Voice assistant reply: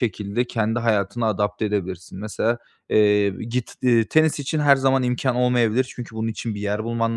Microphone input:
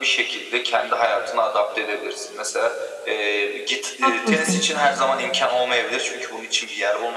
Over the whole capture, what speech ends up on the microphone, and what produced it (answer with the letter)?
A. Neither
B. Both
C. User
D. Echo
B